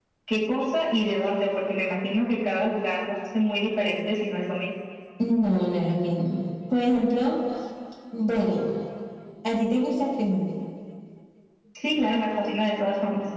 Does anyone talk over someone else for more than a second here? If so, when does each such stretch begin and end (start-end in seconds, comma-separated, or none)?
none